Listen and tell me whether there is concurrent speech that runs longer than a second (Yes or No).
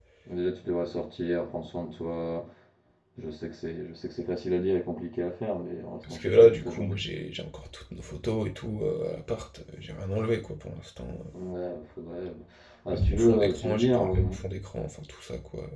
Yes